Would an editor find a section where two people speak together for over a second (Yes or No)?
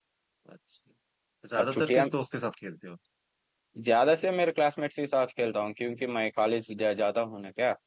No